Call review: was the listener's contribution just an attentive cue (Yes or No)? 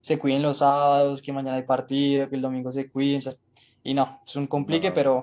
Yes